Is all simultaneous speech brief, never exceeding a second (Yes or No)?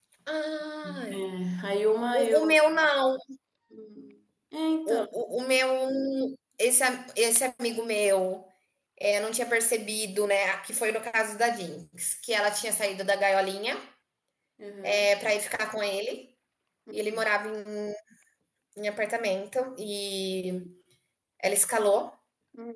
Yes